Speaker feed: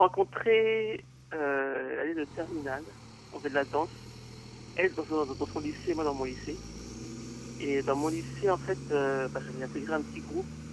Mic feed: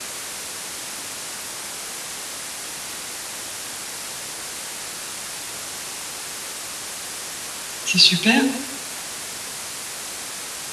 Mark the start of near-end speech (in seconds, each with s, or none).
7.8 s